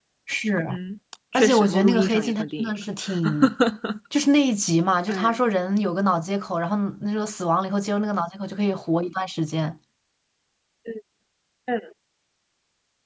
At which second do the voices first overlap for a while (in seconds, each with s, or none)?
1.3 s